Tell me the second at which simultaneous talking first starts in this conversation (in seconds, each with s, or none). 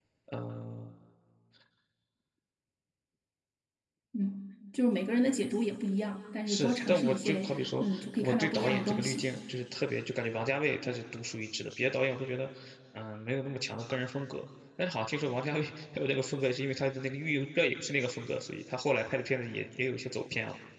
6.5 s